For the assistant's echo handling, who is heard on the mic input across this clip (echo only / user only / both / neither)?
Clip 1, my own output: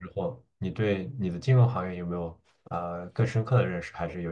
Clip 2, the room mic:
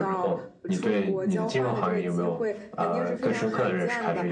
both